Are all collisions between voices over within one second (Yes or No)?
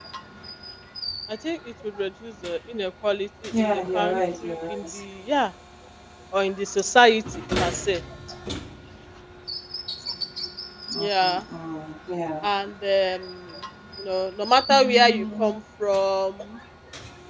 No